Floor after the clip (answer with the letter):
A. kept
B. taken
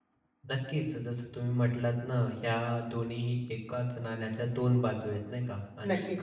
A